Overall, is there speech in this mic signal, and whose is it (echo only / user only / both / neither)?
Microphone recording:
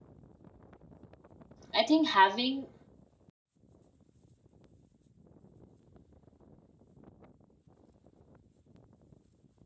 user only